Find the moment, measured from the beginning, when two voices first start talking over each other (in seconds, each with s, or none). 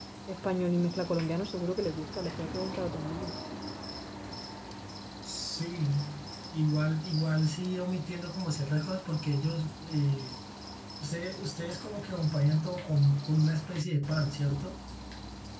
none